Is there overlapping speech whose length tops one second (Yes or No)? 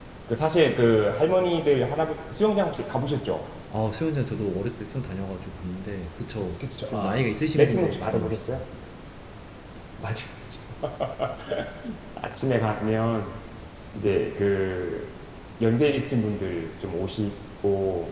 Yes